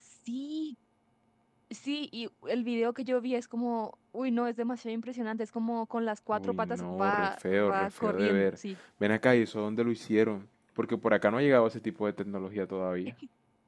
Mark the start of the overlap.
6.3 s

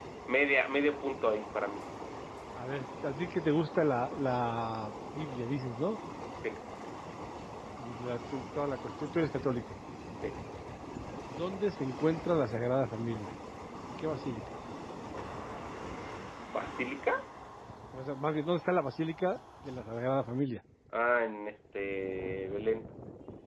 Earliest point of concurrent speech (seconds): none

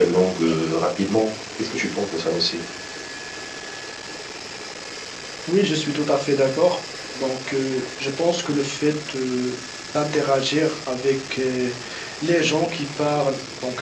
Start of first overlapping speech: none

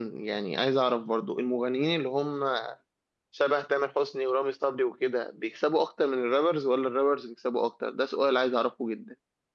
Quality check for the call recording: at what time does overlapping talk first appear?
none

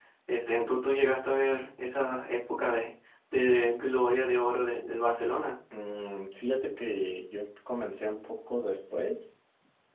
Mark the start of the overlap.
none

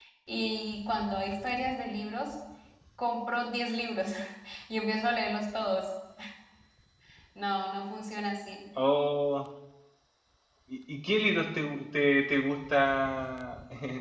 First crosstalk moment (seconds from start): none

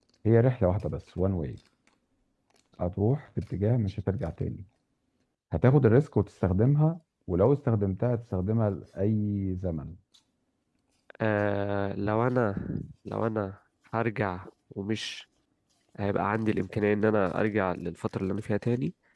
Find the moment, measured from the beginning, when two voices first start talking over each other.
none

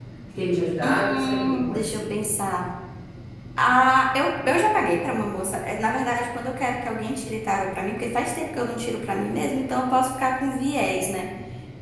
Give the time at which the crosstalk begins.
0.8 s

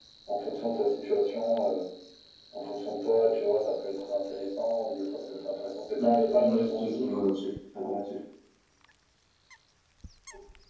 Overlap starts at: 6.0 s

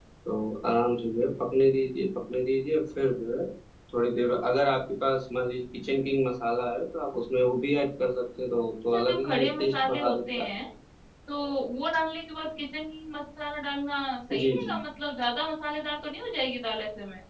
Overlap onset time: 8.9 s

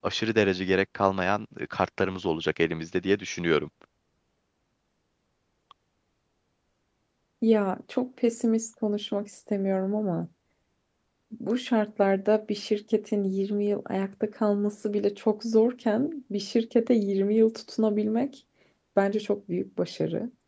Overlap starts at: none

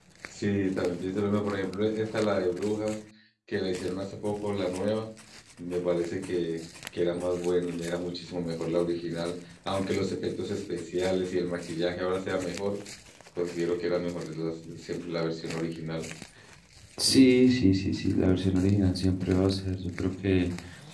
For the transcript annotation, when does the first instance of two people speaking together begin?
none

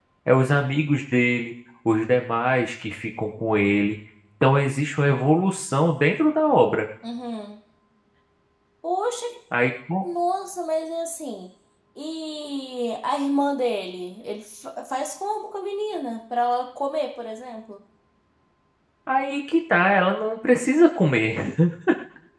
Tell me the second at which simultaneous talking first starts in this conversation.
none

